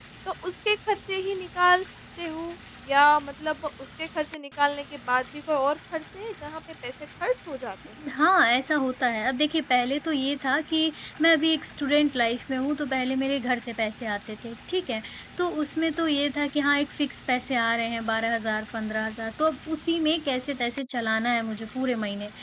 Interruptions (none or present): none